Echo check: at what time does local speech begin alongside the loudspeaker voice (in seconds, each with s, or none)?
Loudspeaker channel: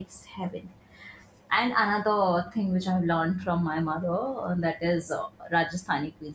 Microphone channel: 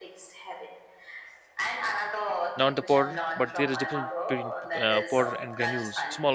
2.5 s